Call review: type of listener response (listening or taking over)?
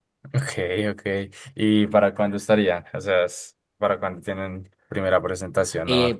taking over